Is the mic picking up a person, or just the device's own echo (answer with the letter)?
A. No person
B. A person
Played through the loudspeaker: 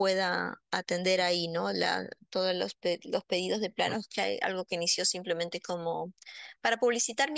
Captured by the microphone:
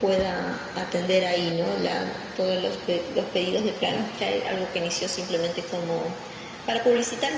A